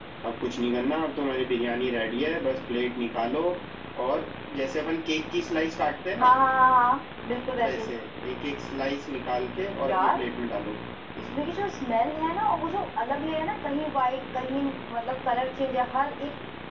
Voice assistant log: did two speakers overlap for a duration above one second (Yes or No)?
No